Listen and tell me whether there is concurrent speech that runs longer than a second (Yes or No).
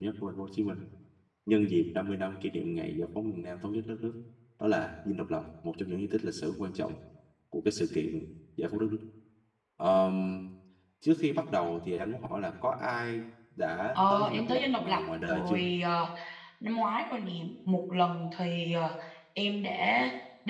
Yes